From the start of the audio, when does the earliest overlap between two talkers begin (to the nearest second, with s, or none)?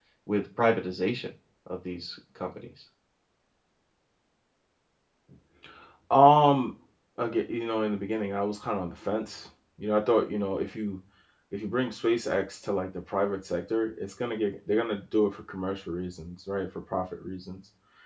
none